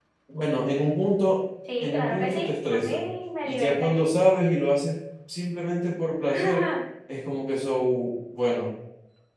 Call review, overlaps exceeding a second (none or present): present